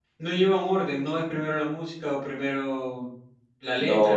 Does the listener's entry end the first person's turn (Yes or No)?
Yes